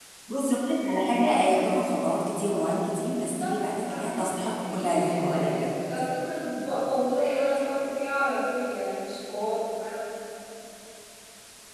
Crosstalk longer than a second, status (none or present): present